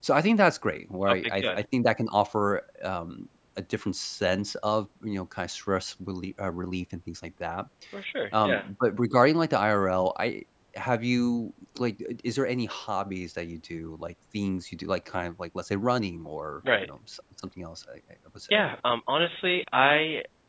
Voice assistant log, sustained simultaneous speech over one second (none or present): none